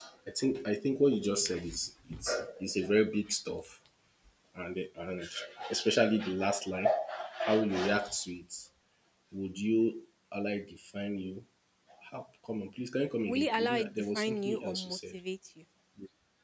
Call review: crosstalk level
present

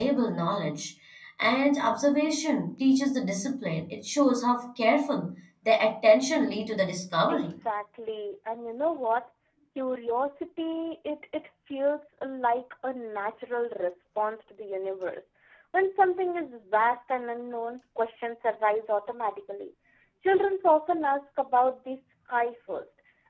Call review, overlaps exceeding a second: none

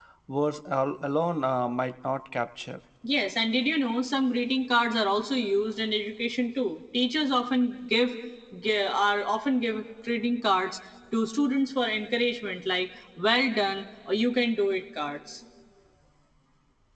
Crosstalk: none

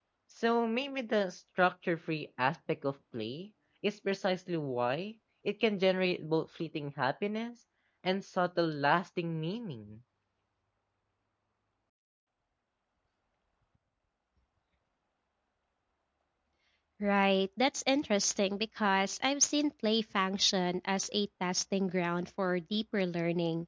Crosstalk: none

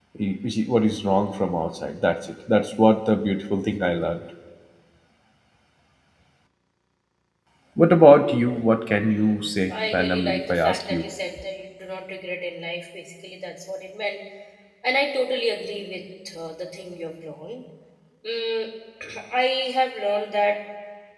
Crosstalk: present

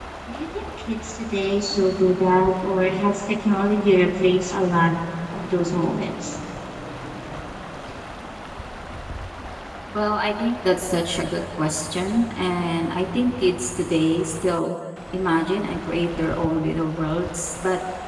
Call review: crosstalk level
none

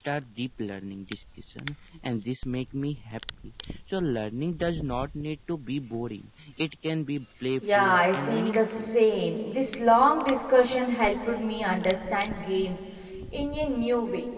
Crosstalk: present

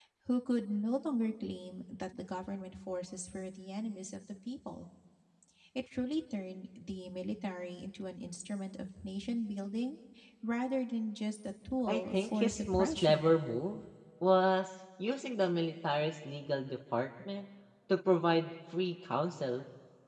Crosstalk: present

